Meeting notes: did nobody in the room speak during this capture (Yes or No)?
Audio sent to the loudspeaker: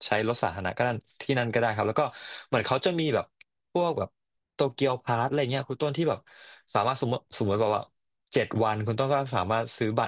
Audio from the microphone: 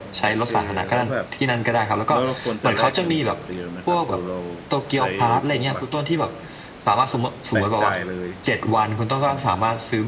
No